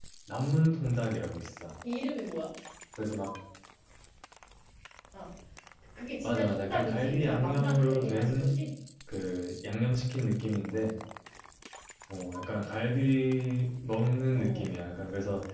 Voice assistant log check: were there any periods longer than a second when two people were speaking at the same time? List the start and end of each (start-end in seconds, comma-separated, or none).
6.2-8.6